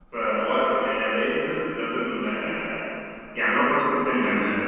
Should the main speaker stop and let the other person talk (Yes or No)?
No